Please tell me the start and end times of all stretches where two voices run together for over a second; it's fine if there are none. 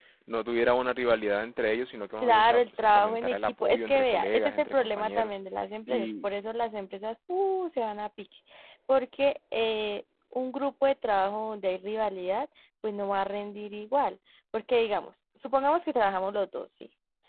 2.2-5.3

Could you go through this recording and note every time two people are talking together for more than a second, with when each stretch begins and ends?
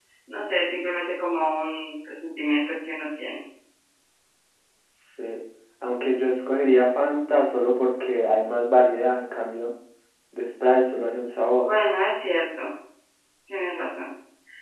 none

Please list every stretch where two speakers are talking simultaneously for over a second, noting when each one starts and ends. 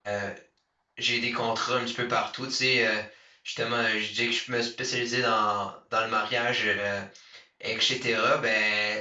none

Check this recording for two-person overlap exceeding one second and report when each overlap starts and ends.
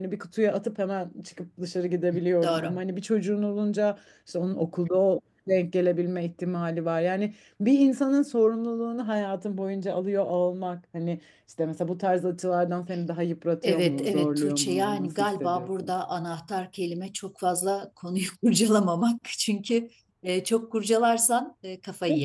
13.6-15.9

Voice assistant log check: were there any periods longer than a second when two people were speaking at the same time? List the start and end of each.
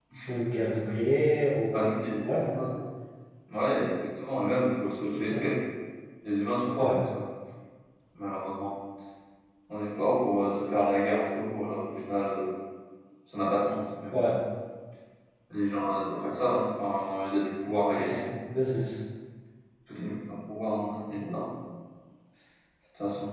none

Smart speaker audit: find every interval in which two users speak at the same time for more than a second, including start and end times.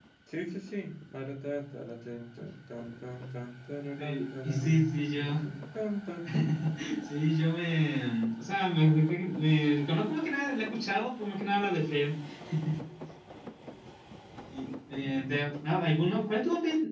4.0-5.2

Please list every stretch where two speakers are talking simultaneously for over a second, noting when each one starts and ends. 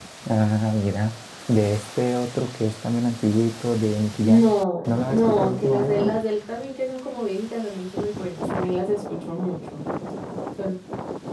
4.9-6.1

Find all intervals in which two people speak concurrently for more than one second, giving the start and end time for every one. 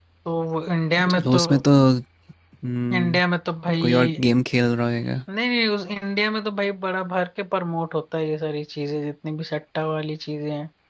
none

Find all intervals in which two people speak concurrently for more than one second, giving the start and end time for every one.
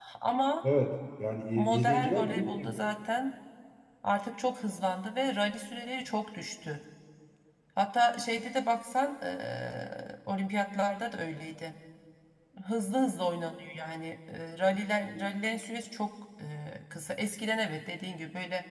1.6-2.9

